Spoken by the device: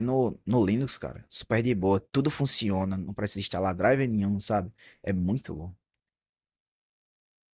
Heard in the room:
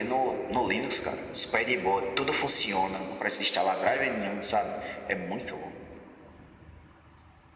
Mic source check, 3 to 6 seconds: echo only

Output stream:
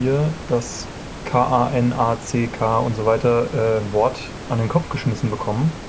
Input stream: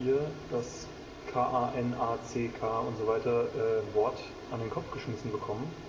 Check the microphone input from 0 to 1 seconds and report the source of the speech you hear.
echo only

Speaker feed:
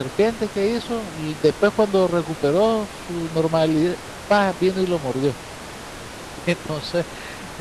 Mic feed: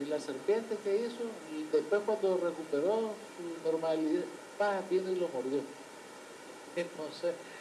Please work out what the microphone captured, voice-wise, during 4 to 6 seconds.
echo only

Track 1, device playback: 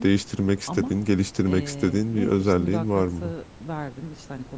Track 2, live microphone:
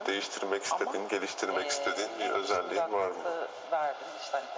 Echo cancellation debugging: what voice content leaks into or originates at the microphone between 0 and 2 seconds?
echo only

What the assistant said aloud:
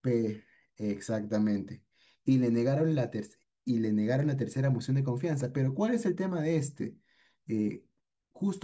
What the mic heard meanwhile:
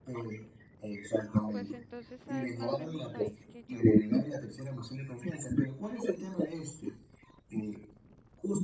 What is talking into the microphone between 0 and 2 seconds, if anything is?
both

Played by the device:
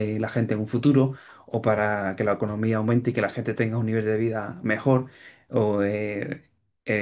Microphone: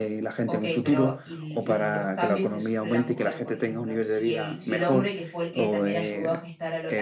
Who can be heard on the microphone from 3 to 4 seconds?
both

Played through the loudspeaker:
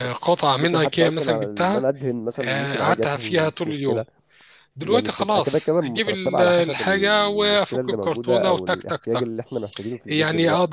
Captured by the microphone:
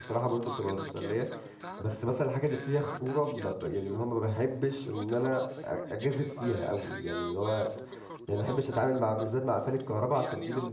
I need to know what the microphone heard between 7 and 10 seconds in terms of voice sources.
both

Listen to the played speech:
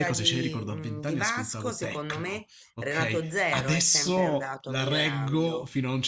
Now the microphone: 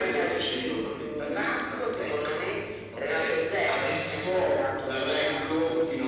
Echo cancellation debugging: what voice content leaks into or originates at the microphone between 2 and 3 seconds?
echo only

